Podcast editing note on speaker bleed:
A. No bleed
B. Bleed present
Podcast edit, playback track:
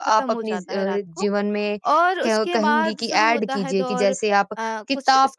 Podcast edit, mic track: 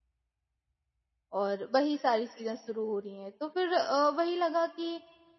A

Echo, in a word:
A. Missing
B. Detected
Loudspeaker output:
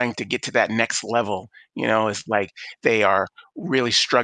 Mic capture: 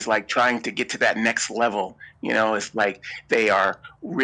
B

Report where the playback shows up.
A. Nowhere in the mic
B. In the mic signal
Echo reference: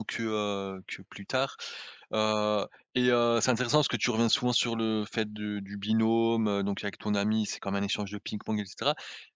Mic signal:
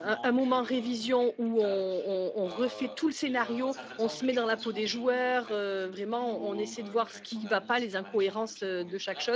B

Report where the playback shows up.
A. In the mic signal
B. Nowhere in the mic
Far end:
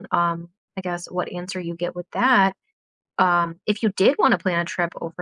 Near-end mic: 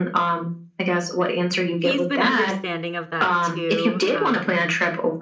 A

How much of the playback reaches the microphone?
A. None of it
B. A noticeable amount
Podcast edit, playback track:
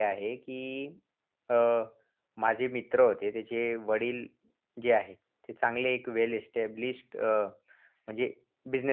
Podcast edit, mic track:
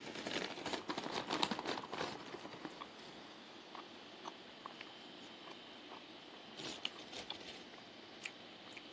A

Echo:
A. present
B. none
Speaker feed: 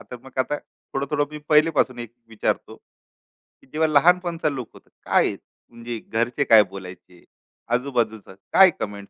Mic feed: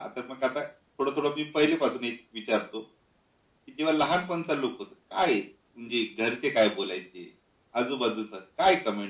A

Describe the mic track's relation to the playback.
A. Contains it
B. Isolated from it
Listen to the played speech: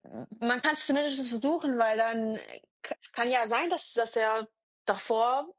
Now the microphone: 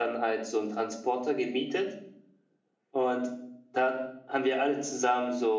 B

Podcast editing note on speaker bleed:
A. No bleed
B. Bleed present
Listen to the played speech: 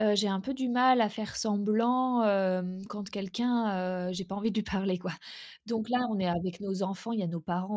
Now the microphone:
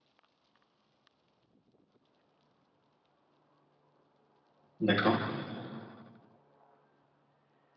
A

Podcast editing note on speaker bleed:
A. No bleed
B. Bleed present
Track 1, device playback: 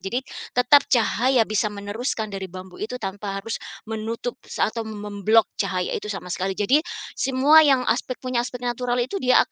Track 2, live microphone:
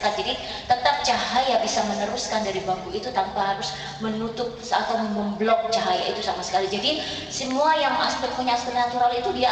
B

